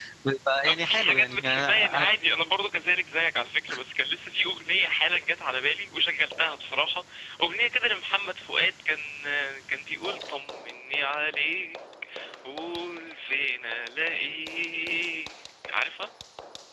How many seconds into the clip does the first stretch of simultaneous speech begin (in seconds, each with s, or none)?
0.7 s